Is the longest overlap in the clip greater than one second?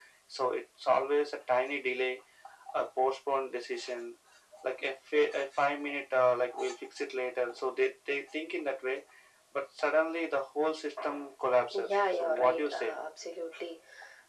Yes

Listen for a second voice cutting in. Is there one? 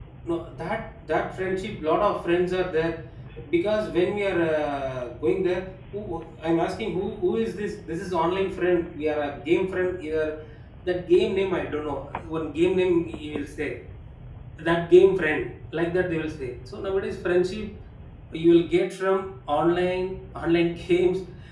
No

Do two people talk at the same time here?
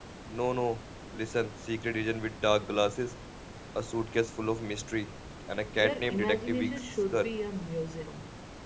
Yes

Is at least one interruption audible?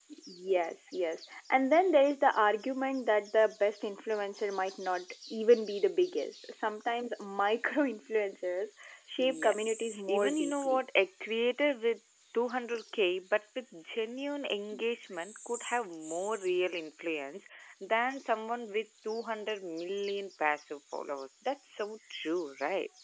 Yes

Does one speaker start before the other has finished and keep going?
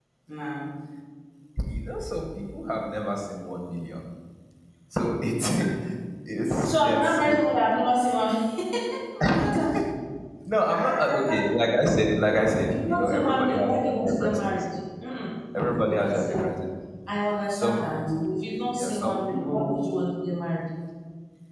Yes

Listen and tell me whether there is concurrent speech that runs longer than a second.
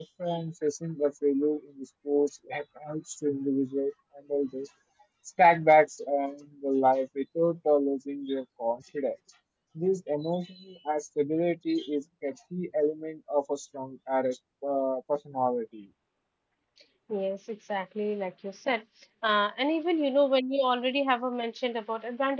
No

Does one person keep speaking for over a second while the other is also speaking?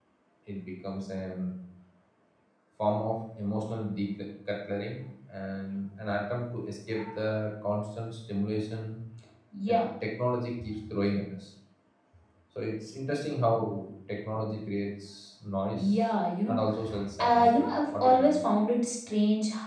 Yes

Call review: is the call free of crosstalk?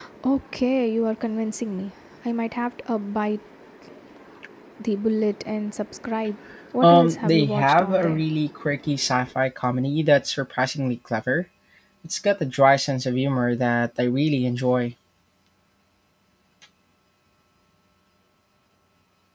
No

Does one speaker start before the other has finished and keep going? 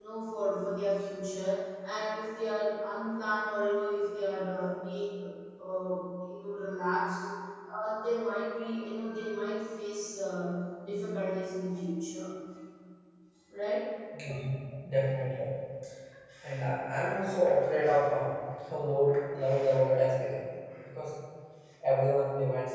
No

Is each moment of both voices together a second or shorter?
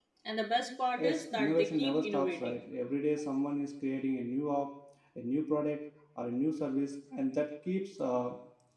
No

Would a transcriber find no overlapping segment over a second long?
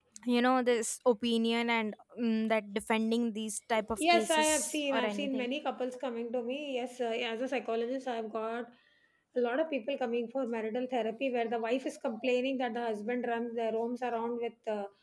No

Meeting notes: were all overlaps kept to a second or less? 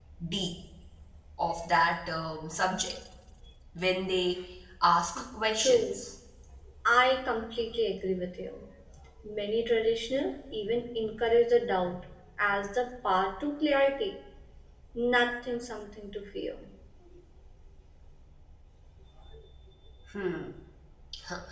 Yes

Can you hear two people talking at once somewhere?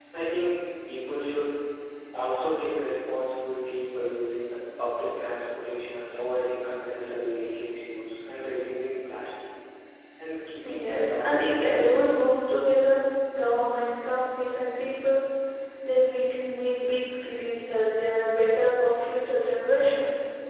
Yes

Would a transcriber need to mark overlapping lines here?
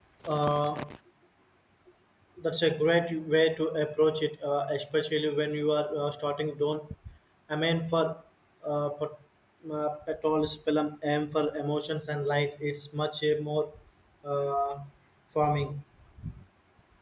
No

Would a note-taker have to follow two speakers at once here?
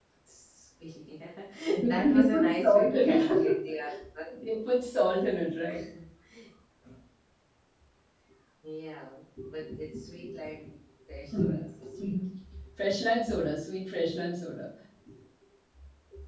Yes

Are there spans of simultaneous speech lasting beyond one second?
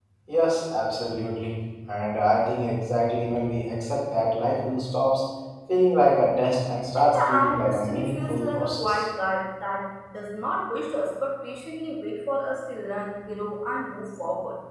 Yes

